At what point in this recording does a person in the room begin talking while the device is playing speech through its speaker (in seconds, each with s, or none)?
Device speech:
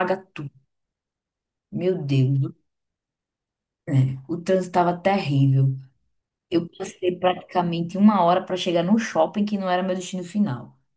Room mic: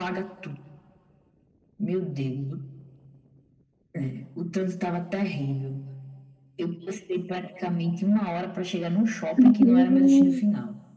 9.4 s